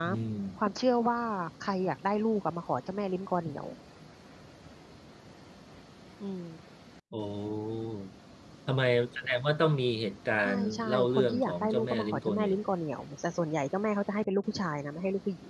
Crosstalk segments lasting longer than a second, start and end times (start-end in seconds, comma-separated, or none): 10.4-12.6